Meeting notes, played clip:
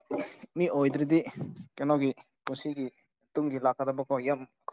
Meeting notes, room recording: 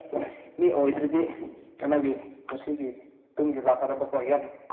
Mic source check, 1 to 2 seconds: echo only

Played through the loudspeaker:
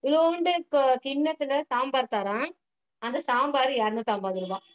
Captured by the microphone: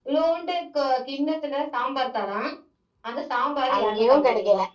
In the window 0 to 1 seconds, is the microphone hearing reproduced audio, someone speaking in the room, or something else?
echo only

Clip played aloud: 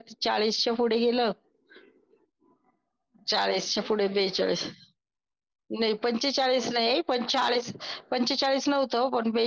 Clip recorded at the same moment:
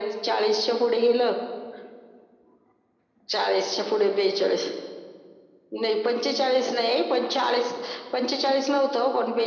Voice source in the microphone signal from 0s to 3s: echo only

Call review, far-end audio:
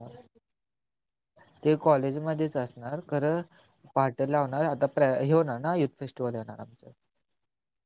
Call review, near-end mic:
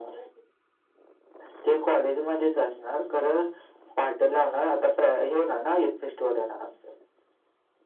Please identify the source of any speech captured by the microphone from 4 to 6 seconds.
echo only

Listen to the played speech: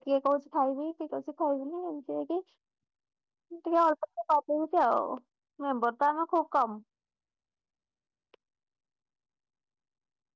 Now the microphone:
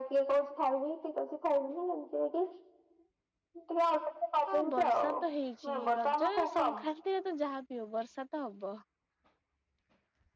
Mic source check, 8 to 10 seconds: user only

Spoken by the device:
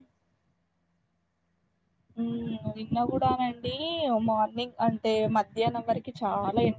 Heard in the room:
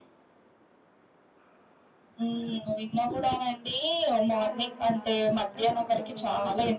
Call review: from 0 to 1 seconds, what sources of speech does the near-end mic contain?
neither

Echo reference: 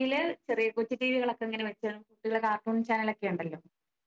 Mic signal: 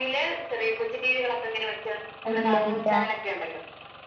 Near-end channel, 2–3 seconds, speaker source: both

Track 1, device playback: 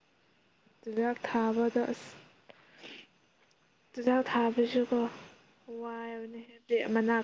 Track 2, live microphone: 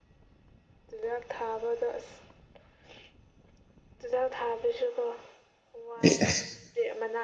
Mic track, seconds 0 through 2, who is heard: echo only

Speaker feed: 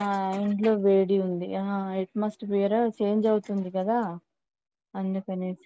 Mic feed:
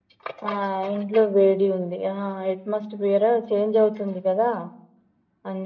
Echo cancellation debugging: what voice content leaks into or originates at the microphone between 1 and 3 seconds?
echo only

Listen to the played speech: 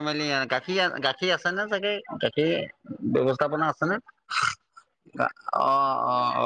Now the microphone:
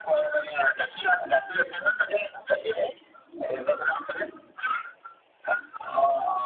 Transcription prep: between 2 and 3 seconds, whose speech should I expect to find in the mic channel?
echo only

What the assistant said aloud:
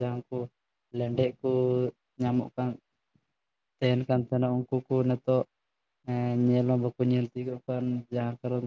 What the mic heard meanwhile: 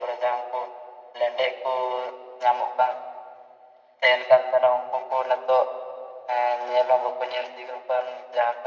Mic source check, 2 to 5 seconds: echo only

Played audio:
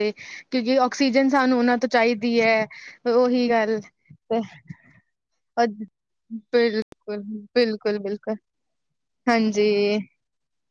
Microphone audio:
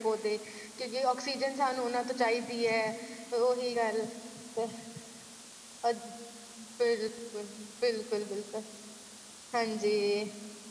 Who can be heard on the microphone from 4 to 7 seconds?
echo only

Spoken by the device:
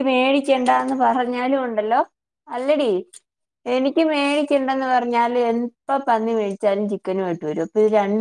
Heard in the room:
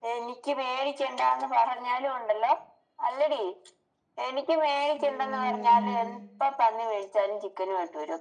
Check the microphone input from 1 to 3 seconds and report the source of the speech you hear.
echo only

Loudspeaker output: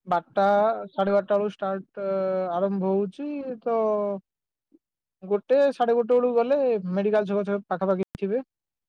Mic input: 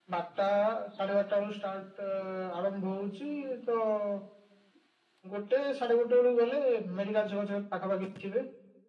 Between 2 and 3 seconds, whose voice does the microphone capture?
echo only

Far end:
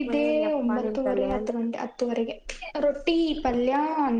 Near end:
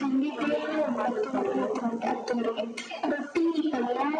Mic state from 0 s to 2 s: echo only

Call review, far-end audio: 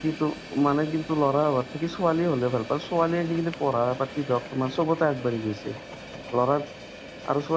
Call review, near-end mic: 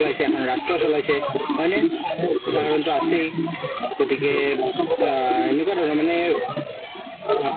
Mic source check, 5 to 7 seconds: both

